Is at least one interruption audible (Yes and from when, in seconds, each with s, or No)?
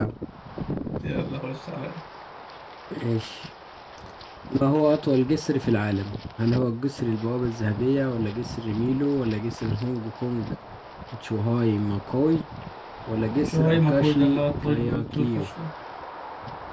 Yes, from 13.5 s